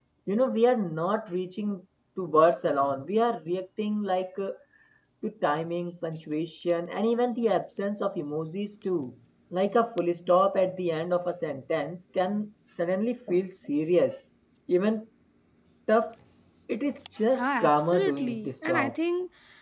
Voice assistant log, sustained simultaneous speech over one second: present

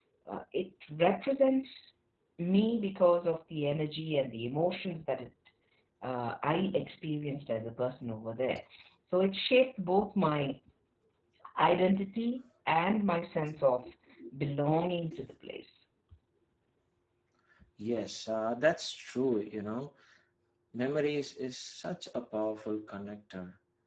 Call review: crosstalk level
none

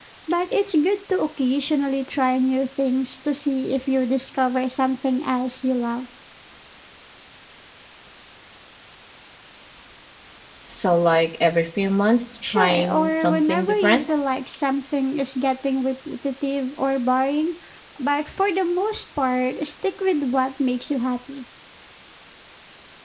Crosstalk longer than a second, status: present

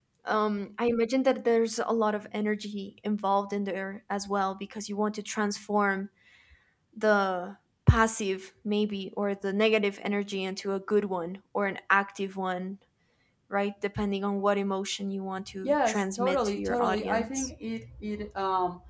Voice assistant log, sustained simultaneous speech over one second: present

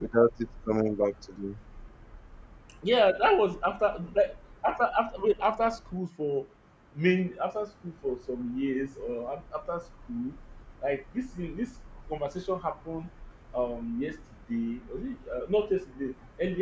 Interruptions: none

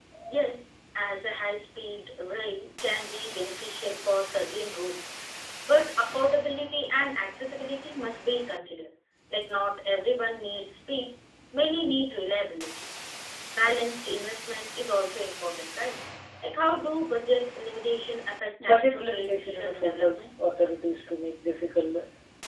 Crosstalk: present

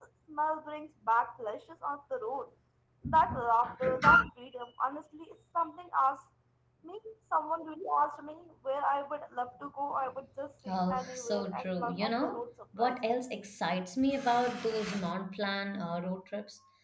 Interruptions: present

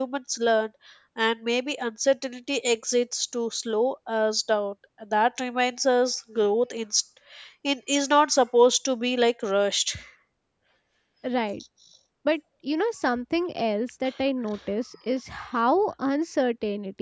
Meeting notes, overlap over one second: none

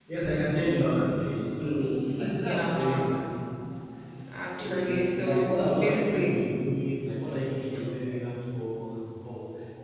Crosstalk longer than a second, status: present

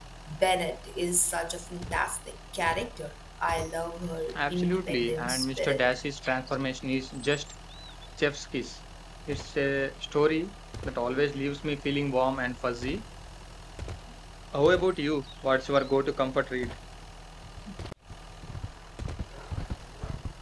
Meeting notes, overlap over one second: present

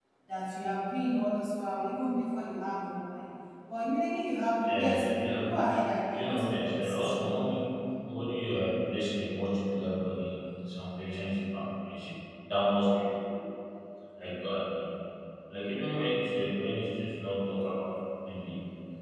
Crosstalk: present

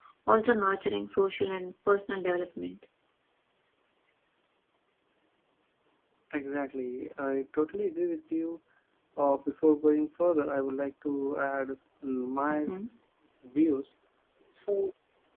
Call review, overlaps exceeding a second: none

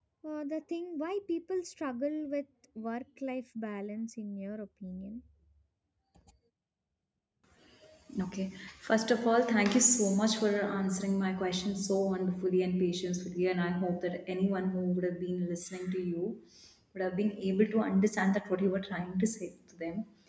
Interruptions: none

